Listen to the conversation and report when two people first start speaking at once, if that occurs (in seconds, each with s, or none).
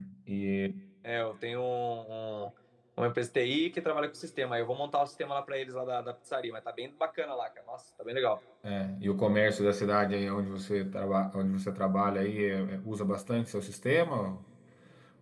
none